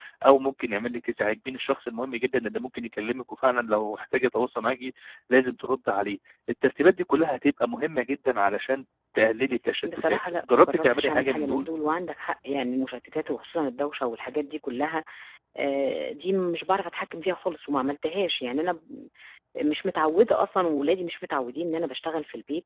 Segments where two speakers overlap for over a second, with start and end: 9.8-11.7

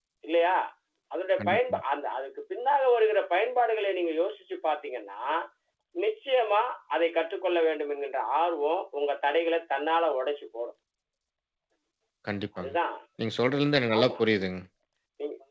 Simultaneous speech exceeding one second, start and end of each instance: none

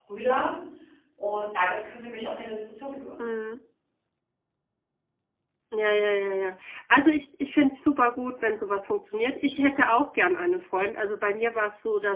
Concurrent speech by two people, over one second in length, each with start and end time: none

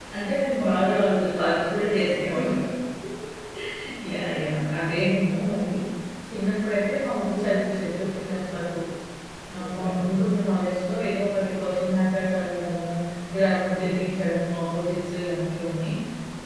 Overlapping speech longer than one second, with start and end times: 0.6-2.4

